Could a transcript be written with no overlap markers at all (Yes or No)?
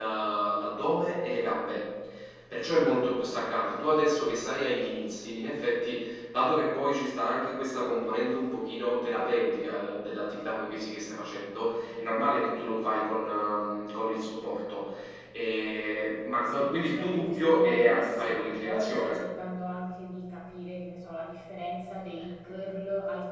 No